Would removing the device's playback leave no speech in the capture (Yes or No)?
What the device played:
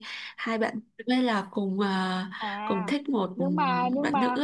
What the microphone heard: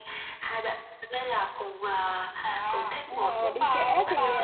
No